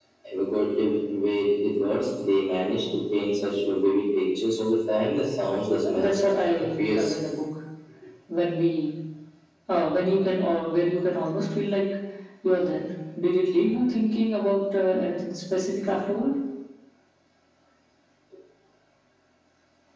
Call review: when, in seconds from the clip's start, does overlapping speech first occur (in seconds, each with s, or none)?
5.8 s